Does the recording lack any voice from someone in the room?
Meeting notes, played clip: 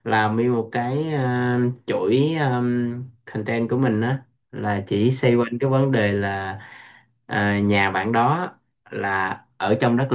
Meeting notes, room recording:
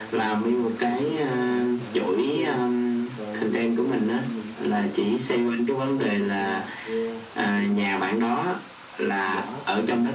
No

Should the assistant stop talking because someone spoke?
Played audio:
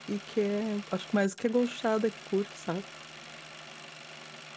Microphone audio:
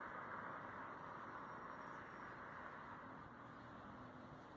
No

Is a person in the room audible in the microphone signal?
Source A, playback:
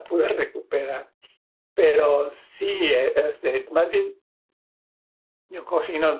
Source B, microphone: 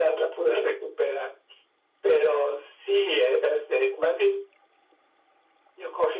No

